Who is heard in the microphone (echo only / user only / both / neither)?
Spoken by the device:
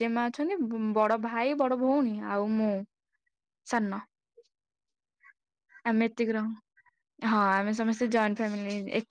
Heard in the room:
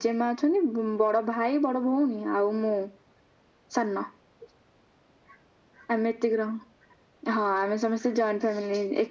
echo only